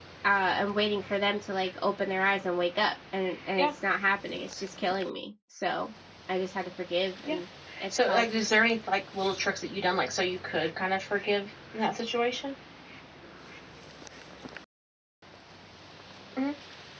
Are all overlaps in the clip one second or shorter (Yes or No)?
Yes